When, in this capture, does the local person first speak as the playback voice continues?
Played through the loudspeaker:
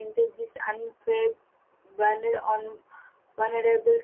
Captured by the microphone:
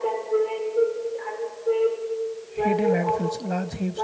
2.5 s

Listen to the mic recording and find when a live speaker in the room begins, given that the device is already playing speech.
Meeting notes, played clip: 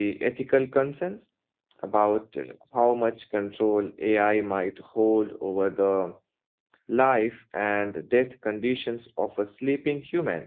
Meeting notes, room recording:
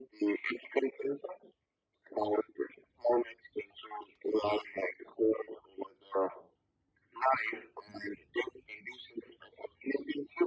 none

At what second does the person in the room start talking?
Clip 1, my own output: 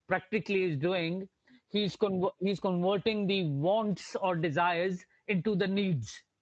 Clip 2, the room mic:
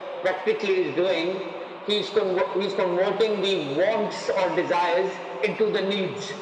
none

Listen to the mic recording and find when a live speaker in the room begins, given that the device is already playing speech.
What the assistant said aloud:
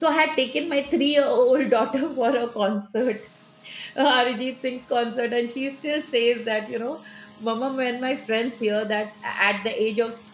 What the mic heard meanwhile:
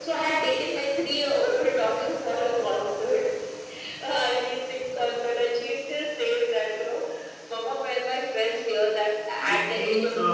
9.4 s

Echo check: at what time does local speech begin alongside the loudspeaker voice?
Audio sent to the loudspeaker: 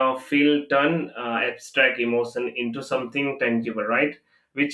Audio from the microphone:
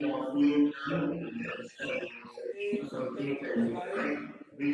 2.5 s

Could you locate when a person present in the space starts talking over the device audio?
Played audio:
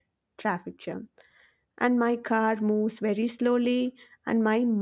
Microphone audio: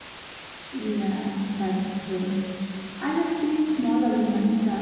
0.7 s

